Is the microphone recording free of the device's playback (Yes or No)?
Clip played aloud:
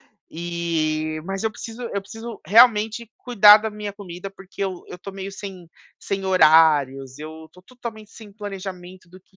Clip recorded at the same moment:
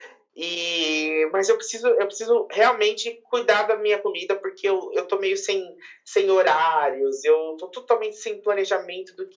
No